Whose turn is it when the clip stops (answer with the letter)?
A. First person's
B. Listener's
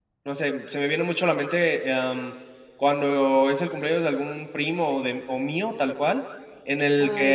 A